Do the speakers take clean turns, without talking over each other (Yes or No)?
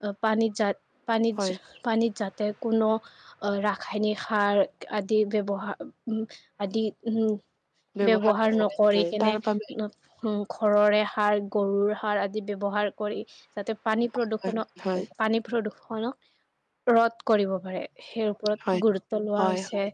No